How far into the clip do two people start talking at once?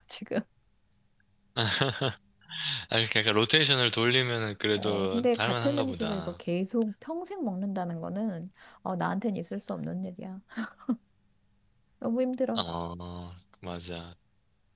4.8 s

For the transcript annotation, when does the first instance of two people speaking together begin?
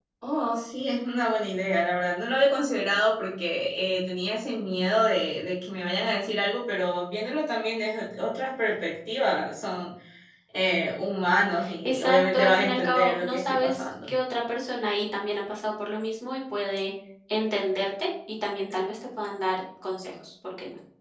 11.6 s

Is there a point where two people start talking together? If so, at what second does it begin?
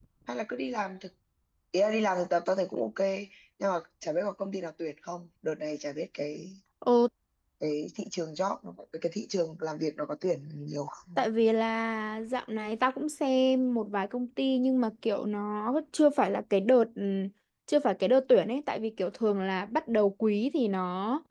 none

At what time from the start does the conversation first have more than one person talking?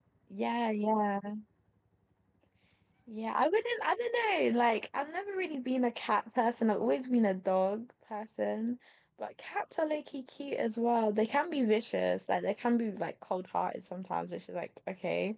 none

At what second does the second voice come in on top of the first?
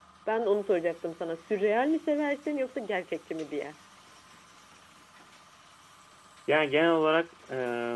none

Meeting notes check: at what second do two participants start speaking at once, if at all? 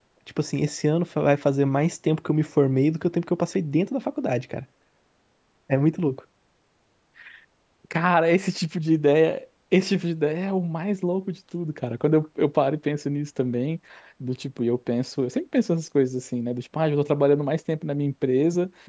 none

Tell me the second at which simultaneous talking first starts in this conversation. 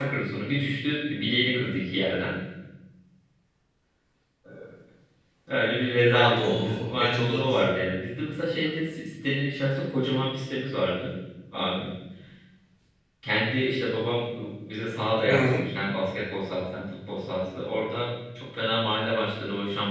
6.1 s

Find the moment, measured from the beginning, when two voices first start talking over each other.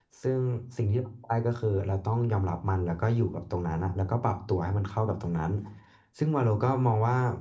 none

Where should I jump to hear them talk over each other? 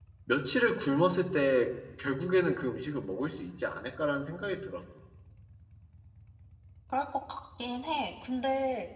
none

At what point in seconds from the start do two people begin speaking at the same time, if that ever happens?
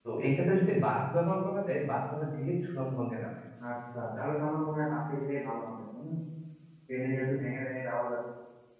none

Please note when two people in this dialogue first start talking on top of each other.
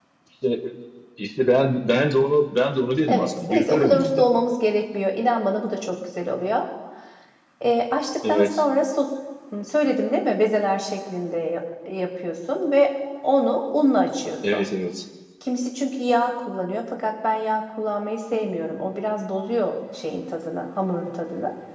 3.1 s

